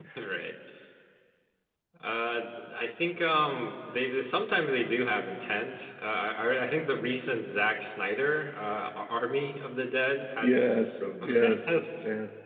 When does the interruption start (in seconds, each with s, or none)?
10.4 s